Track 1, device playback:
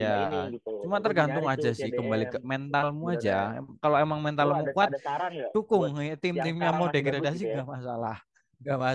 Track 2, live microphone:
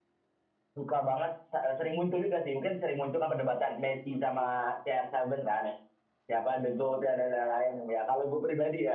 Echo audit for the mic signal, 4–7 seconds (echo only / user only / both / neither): user only